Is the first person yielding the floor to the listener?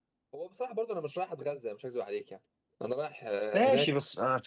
Yes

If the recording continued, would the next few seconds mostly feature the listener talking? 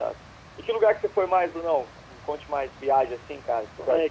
Yes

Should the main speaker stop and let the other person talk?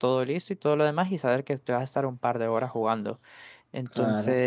No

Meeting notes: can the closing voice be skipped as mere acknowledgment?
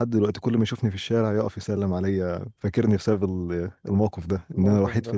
Yes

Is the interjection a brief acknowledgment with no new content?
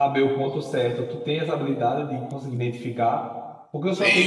Yes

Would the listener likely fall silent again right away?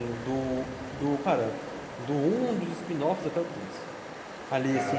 Yes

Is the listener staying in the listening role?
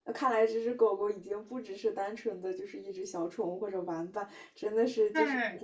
No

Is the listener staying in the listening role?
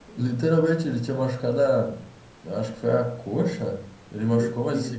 Yes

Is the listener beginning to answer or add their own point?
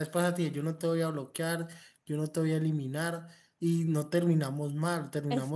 Yes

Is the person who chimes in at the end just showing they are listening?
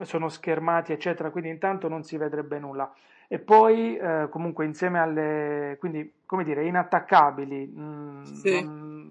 Yes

